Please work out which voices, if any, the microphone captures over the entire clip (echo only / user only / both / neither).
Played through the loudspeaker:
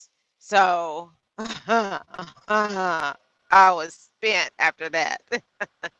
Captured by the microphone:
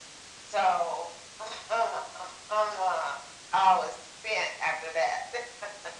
echo only